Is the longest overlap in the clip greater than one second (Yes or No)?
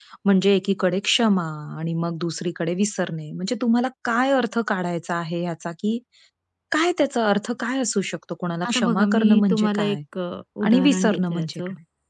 Yes